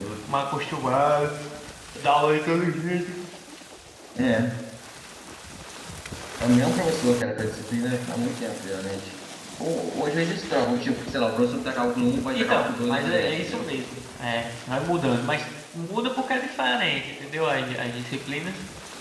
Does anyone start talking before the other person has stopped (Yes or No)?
Yes